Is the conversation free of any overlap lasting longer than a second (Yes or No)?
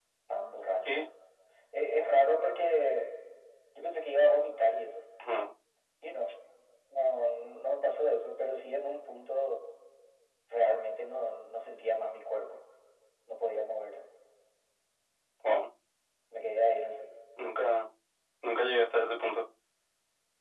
Yes